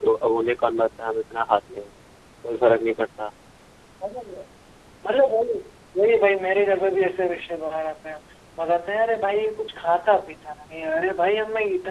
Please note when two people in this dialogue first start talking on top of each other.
none

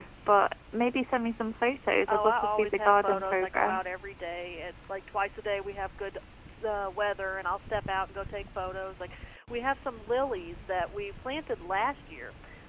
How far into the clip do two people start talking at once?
2 s

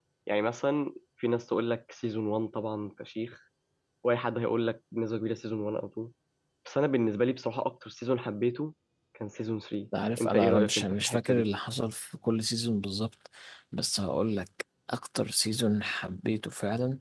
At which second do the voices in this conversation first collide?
10 s

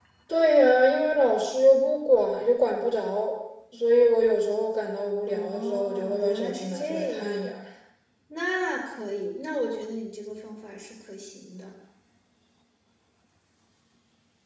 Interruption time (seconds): 5 s

